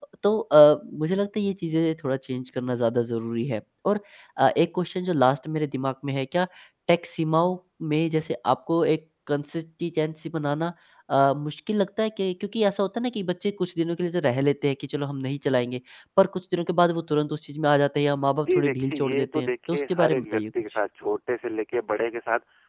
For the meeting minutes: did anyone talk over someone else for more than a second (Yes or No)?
Yes